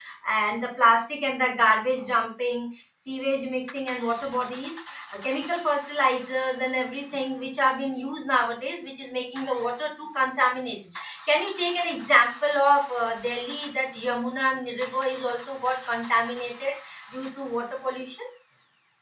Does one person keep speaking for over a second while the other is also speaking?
No

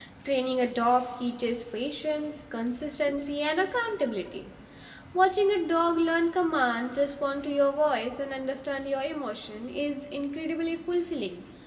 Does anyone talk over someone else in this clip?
No

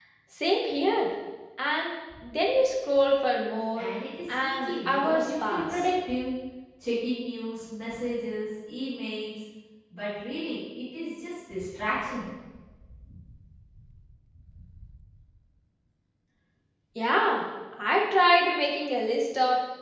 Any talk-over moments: Yes, from 4.3 s

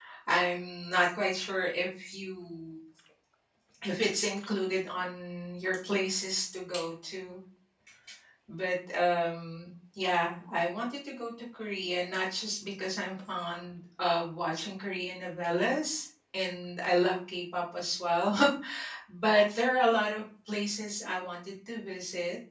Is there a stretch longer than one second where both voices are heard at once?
No

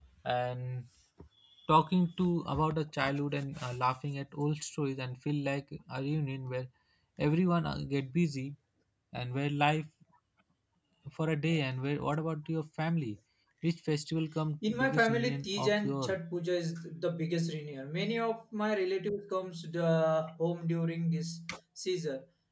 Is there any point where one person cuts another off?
Yes, from 14.6 s

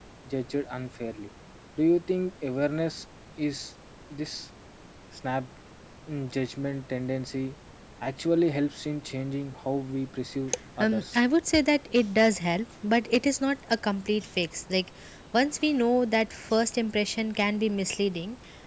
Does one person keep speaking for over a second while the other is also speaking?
No

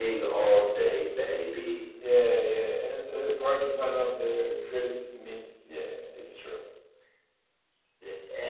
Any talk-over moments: No

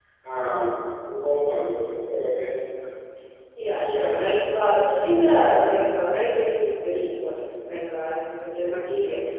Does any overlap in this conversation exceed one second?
Yes, from 3.7 s

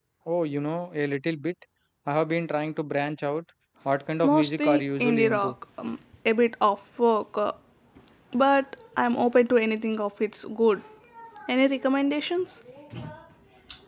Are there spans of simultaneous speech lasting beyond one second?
Yes, from 4.2 s

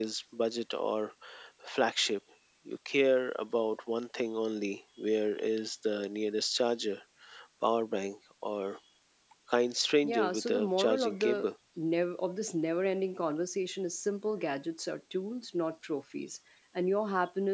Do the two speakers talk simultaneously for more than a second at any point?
Yes, from 10.0 s

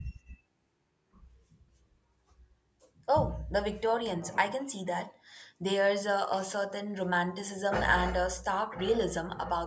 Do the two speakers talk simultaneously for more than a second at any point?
No

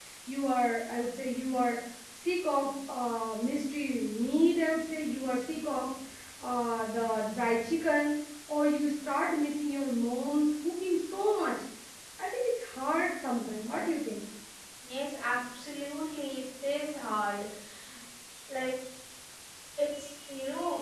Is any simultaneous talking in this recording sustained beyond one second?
No

